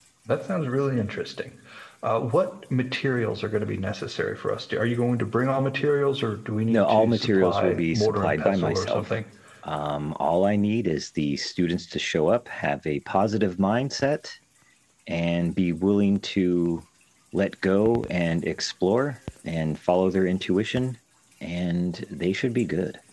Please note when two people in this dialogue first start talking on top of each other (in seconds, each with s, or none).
6.7 s